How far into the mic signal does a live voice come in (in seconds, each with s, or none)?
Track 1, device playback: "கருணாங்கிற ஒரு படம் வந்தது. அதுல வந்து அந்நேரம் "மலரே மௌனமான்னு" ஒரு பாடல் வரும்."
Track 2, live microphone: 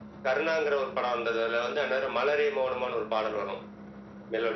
none